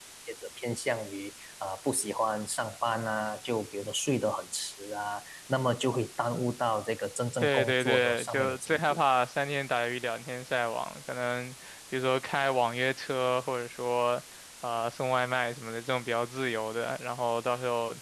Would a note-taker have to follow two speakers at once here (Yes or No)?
Yes